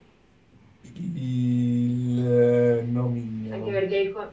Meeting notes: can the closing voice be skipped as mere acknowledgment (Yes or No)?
No